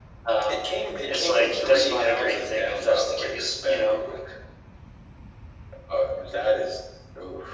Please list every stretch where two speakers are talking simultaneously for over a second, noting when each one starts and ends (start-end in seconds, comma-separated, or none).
1.1-4.0